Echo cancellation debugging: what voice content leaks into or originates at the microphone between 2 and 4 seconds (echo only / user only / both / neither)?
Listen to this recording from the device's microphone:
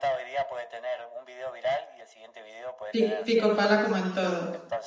both